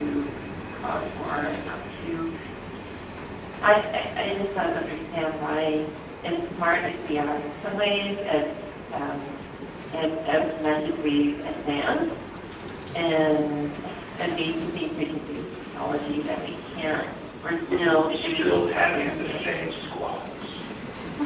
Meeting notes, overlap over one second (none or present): present